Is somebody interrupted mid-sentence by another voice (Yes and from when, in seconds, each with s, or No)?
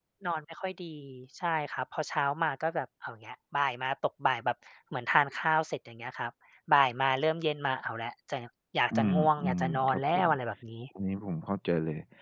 Yes, from 8.9 s